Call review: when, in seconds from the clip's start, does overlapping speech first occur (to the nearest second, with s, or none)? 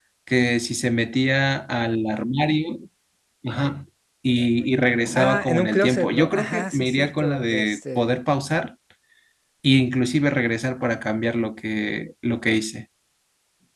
5 s